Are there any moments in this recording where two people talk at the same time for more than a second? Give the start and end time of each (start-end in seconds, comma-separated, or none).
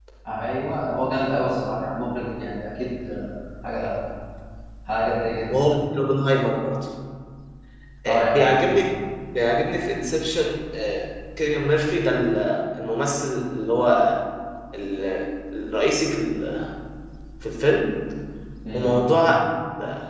none